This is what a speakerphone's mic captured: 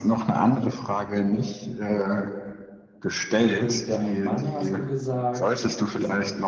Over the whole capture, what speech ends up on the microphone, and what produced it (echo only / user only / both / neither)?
both